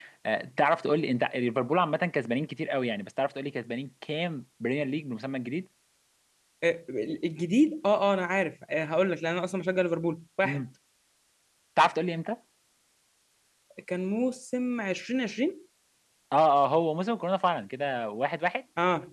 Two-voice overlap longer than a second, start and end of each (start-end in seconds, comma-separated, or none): none